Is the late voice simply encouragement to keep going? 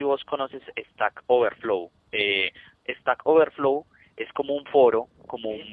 Yes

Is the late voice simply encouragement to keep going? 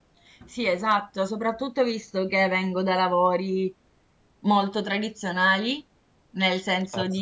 Yes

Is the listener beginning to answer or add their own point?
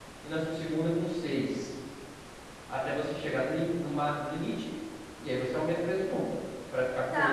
Yes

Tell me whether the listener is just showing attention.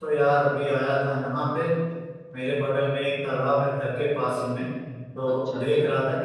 Yes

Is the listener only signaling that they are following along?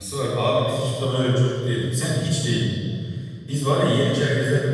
Yes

